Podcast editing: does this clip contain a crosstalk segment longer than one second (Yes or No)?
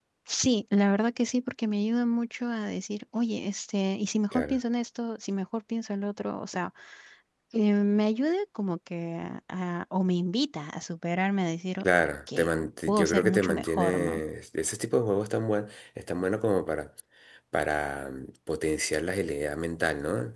Yes